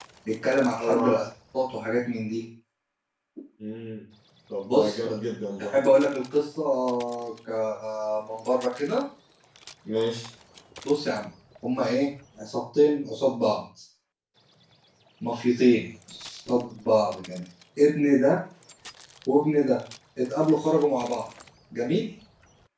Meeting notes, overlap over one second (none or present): none